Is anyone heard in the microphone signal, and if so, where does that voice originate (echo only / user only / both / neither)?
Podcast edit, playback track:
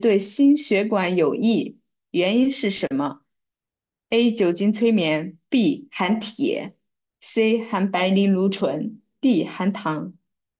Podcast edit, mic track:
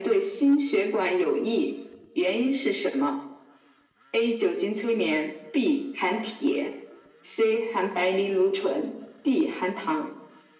echo only